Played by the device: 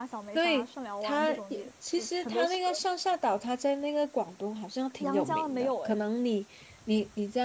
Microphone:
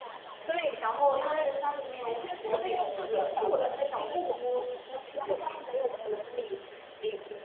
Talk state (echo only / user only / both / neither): both